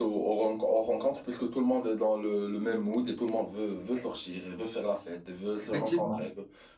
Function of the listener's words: listening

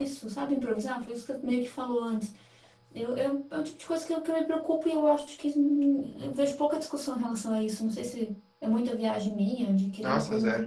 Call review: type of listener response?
listening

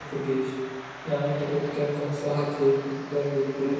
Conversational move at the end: taking over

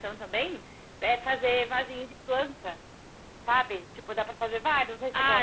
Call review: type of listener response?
taking over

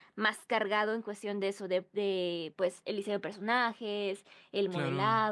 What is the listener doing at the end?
listening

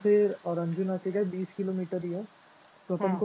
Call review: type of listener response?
listening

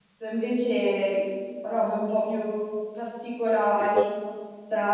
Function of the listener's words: listening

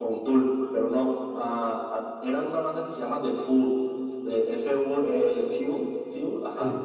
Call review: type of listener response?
listening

